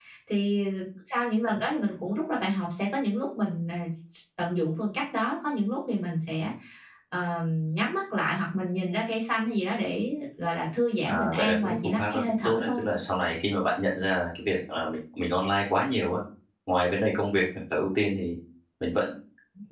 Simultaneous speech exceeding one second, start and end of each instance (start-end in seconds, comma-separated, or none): 11.1-12.8